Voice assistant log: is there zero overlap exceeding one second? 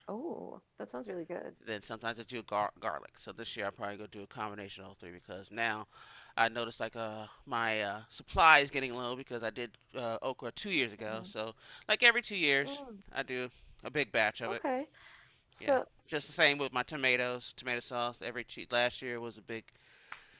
Yes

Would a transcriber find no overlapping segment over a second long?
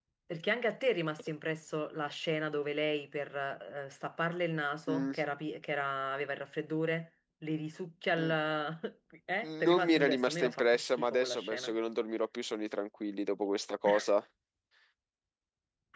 No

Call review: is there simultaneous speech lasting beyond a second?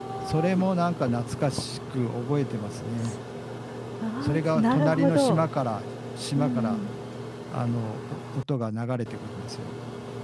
Yes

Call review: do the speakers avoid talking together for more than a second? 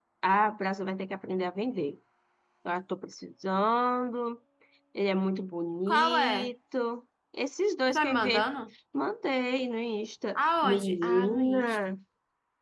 No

